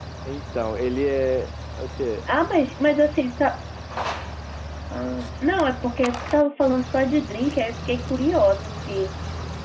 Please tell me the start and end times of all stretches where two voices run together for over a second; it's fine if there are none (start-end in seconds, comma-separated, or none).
none